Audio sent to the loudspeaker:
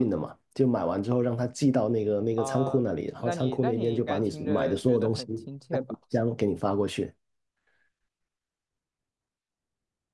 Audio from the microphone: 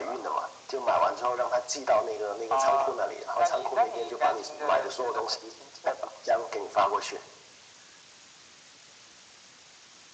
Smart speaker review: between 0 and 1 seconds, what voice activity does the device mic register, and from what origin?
echo only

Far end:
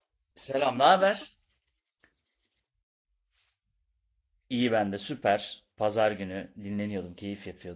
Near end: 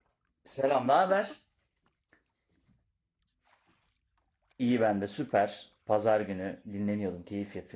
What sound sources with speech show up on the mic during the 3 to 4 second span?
neither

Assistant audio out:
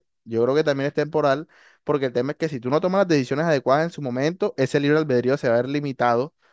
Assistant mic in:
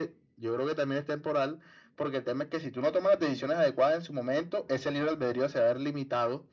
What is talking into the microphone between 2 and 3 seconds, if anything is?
echo only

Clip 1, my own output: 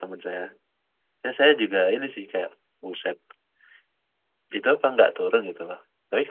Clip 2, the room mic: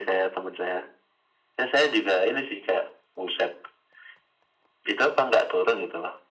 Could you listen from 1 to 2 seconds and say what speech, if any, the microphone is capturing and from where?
echo only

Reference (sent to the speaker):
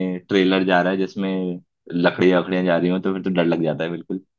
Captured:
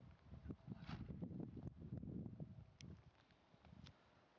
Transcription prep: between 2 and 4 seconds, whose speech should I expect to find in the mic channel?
neither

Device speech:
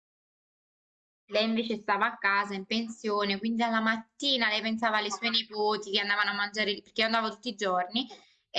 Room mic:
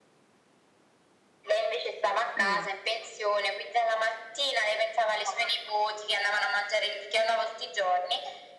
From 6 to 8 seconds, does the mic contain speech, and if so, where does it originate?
echo only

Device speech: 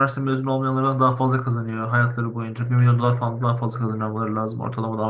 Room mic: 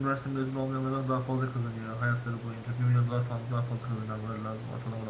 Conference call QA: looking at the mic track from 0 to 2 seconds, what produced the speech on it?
echo only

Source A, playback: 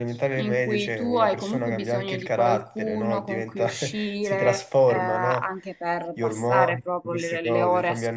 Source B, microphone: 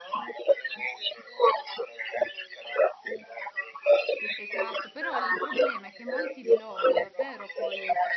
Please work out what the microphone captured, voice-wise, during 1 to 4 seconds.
echo only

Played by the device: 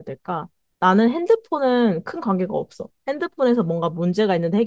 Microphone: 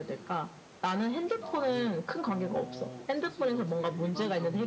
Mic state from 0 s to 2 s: both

